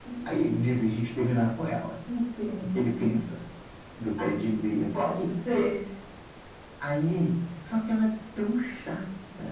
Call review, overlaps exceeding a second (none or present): none